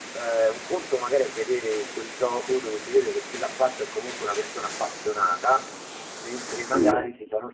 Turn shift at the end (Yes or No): No